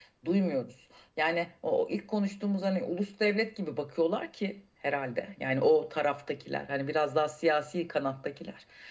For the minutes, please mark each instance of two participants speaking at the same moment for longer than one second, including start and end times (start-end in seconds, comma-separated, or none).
none